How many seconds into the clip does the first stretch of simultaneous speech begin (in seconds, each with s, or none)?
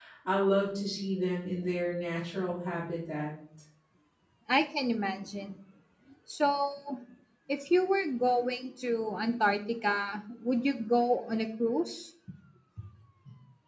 none